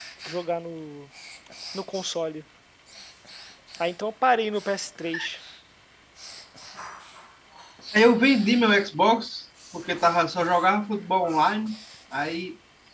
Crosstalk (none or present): none